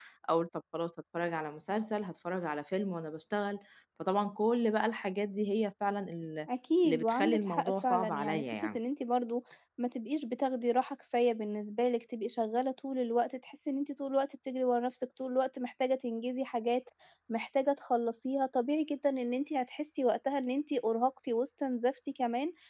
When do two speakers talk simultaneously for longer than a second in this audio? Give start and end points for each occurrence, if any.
6.8-8.8

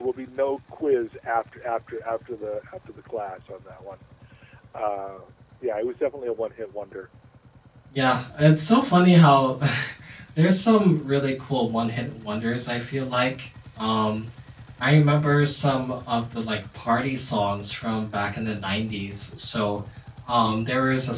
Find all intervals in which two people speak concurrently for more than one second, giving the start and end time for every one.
none

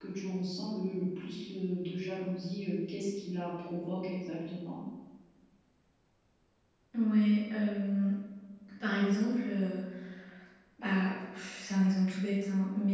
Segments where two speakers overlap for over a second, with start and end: none

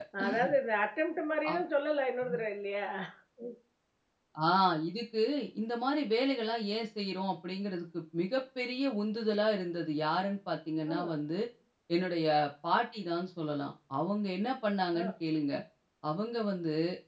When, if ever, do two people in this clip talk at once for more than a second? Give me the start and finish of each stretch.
none

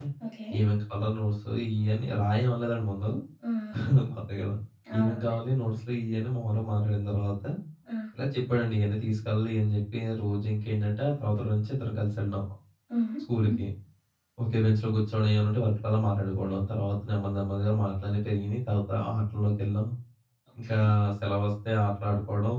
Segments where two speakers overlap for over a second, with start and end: none

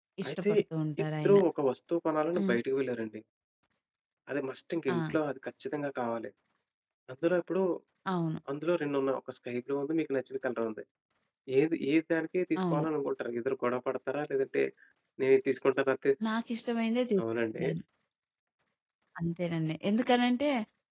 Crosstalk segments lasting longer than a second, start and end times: none

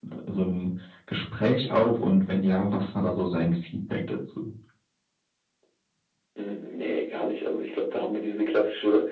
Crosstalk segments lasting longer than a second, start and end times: none

